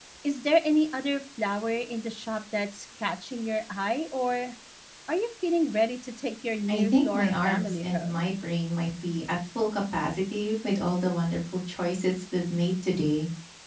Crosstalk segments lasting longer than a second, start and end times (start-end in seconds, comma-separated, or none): 6.7-8.2